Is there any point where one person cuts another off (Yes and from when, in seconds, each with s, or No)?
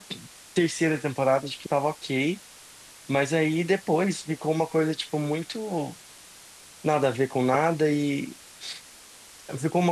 No